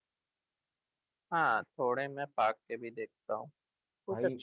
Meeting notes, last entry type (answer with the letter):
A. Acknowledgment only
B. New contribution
A